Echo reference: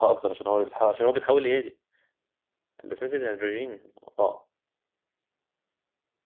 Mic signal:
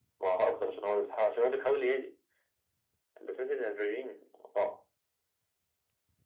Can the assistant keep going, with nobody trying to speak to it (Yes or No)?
Yes